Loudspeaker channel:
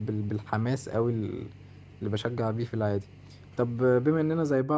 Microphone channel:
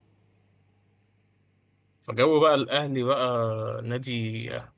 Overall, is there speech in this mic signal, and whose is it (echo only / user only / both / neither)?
user only